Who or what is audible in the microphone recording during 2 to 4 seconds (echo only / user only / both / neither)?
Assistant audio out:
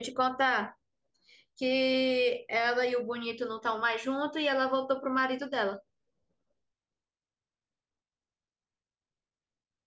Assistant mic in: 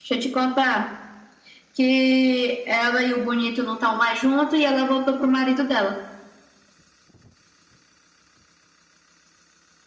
echo only